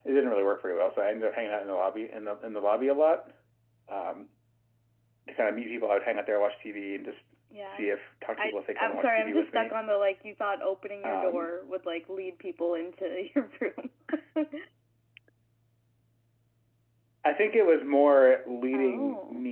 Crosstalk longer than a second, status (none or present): present